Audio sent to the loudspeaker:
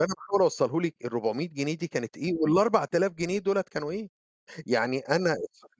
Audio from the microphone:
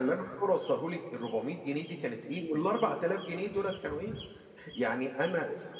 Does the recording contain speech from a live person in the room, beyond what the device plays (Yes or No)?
No